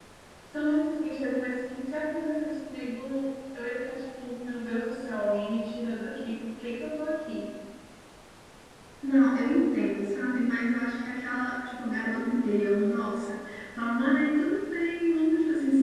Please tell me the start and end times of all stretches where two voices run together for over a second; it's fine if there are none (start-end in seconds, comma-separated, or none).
none